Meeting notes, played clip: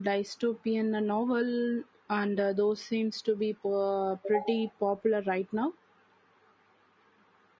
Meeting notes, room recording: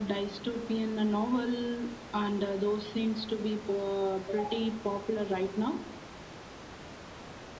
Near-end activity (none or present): none